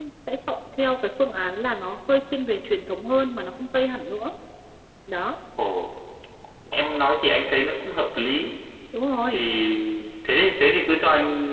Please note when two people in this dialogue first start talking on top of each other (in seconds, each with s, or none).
none